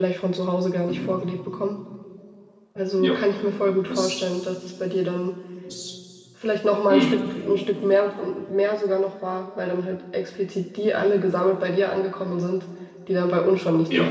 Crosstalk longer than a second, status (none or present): none